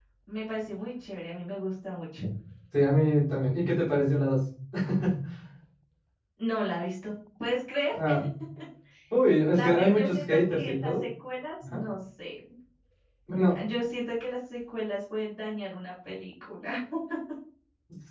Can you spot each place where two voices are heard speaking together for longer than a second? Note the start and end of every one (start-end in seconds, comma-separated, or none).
9.6-11.1